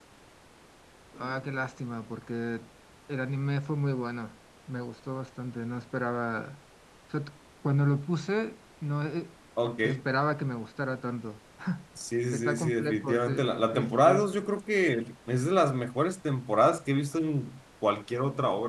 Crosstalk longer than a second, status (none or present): present